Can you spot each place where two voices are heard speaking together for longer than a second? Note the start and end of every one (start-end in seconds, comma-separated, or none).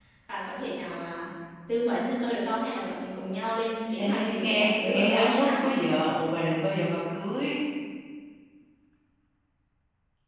4.0-5.5